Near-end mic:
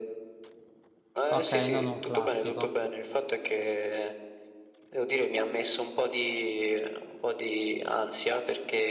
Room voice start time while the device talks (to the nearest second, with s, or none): 1 s